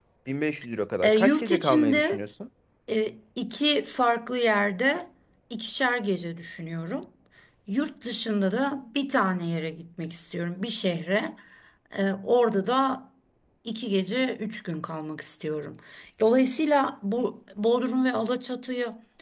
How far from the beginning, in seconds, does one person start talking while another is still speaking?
1.0 s

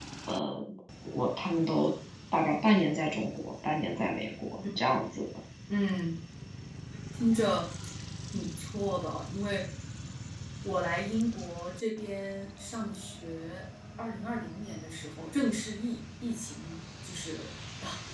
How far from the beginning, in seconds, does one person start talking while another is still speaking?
none

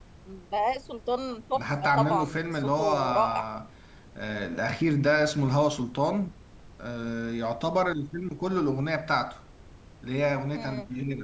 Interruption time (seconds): 1.5 s

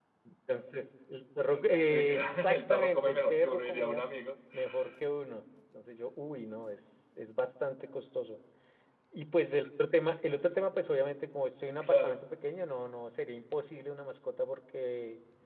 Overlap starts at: 1.8 s

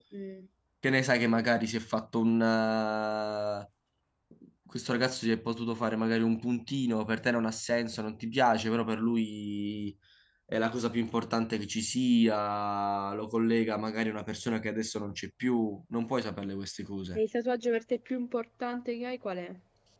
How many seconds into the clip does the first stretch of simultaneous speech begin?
none

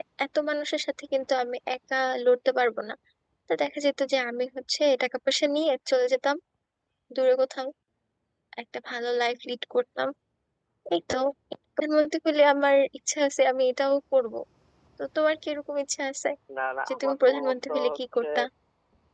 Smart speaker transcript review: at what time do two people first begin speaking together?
16.9 s

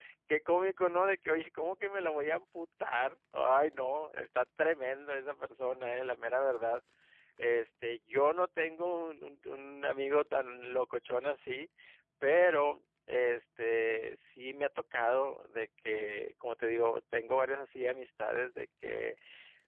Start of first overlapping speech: none

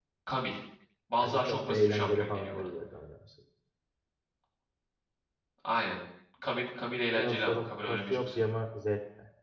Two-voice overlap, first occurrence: 1.2 s

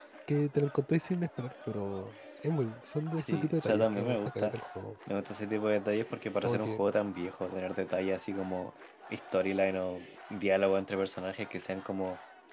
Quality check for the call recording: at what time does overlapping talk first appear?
3.2 s

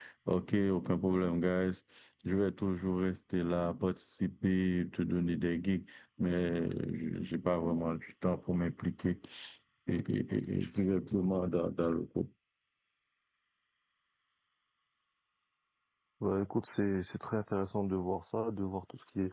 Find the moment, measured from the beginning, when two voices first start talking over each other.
none

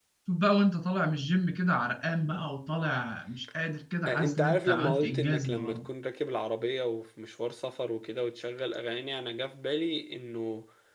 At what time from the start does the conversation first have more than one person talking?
4.1 s

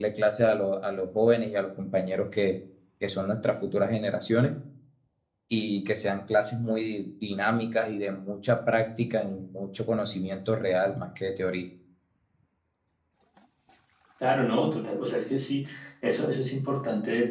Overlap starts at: none

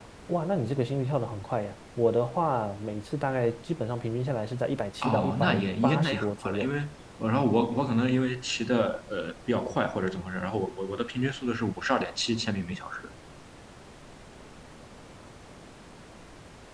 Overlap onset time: 5.0 s

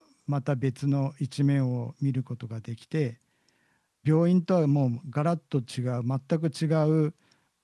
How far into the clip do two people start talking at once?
none

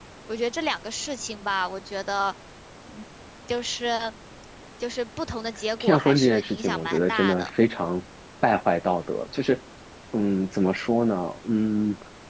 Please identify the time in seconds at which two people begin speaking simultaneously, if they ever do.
5.8 s

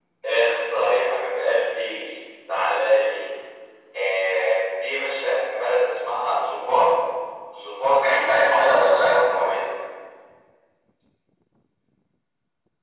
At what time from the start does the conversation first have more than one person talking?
8.0 s

